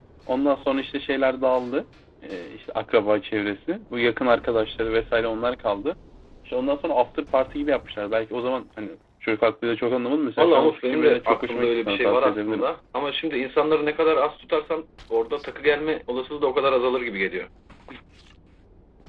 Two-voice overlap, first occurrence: 10.4 s

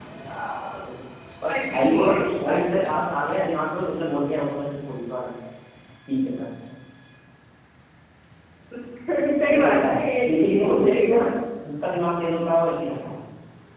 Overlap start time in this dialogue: 1.5 s

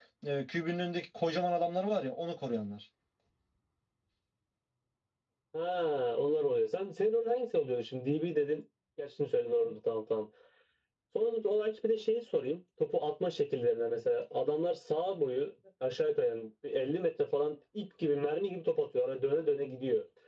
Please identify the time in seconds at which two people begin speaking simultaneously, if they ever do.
none

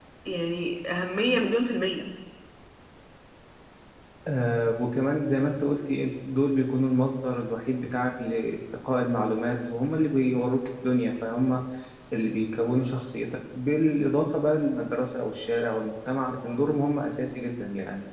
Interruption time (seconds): none

